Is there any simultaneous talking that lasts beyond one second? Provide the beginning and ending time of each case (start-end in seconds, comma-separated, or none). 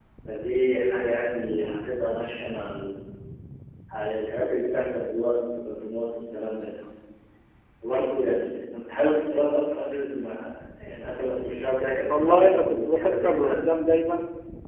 12.1-13.6